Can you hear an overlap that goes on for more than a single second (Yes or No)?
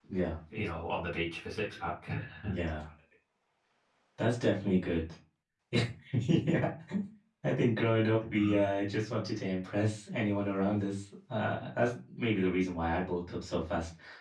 No